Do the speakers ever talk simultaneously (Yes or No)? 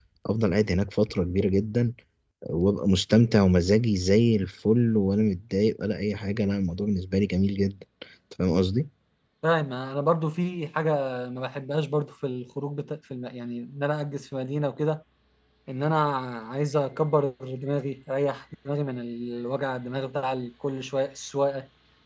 No